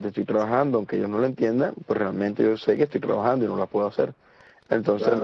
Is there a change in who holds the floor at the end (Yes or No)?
No